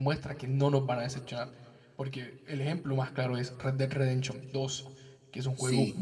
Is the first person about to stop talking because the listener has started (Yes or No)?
No